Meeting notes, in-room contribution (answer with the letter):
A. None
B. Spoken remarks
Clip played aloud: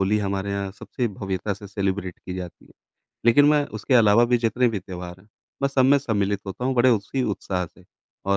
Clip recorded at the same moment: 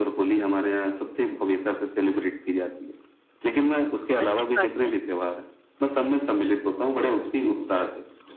B